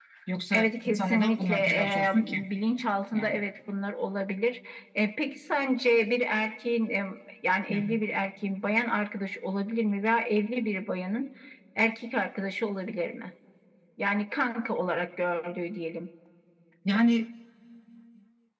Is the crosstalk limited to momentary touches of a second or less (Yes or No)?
No